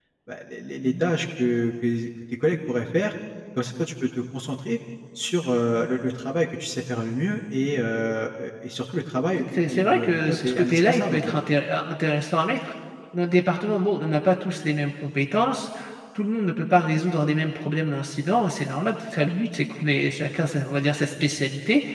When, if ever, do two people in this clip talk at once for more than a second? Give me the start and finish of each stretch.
9.4-11.2

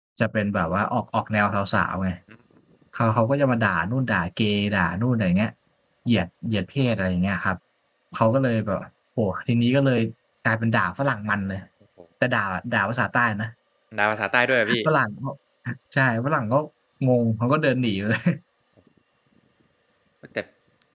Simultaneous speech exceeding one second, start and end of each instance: none

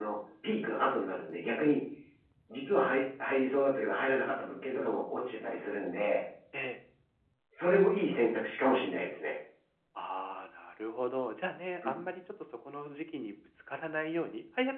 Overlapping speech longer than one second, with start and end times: none

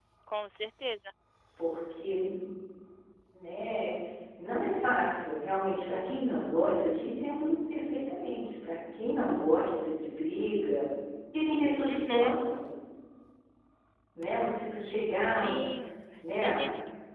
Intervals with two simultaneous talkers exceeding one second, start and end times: none

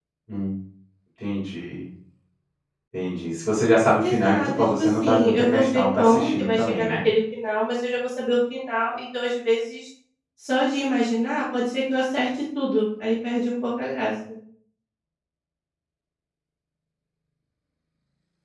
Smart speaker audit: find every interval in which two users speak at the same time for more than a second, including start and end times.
4.1-7.0

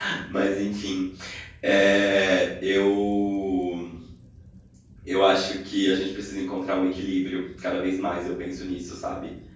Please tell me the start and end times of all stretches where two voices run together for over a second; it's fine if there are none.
none

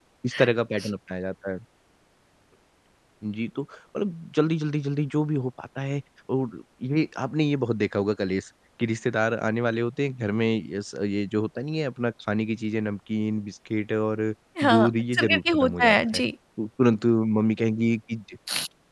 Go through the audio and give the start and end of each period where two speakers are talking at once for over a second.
14.6-16.2

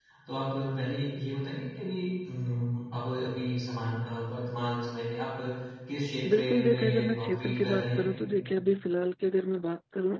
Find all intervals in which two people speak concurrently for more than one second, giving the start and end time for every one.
6.3-8.0

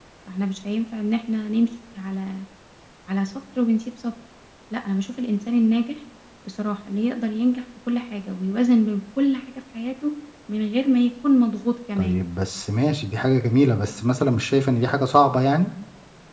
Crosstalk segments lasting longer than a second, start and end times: none

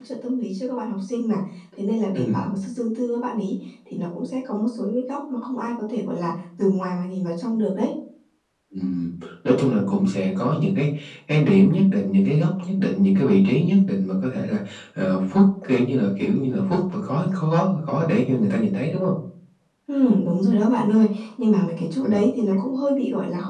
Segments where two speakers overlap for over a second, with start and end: none

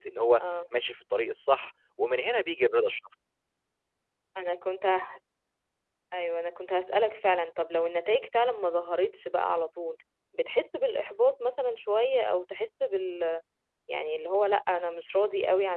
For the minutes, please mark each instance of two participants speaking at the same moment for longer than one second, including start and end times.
none

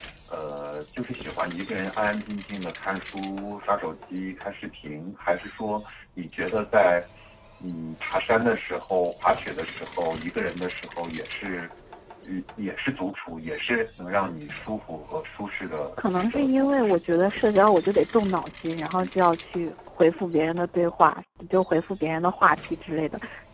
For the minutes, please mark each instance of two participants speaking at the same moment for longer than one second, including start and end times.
16.1-17.3

